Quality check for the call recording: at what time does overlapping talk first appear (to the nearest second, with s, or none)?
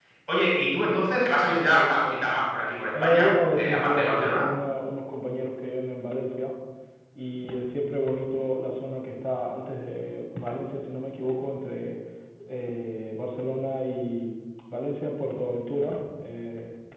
3 s